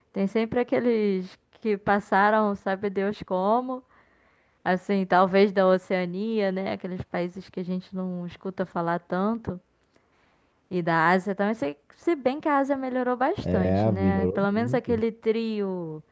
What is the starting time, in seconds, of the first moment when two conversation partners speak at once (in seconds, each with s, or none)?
13.4 s